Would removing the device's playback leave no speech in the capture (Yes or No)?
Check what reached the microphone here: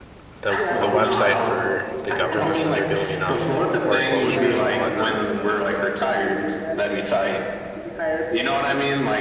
No